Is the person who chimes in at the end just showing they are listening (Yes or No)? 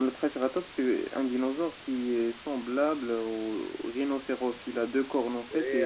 No